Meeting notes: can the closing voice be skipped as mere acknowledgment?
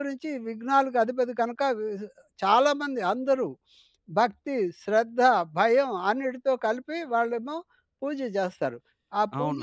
No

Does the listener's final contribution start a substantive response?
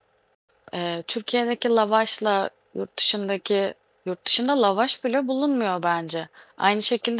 No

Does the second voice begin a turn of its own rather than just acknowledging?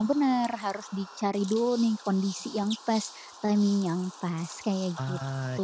Yes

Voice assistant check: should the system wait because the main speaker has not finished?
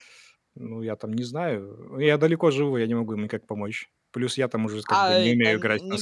No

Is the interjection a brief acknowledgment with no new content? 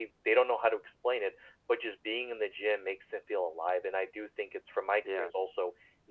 Yes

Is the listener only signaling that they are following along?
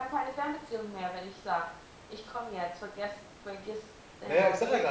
No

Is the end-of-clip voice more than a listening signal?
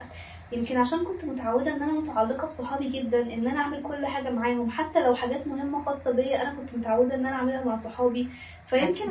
No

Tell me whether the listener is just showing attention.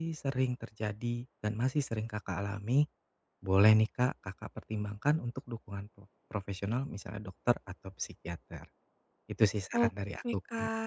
No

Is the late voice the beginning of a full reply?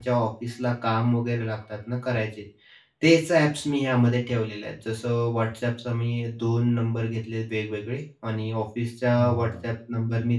No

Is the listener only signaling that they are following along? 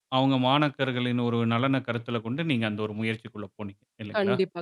No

